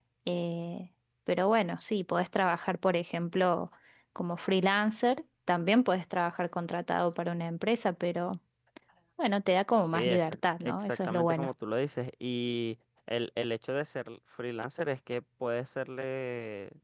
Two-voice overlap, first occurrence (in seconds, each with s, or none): 9.8 s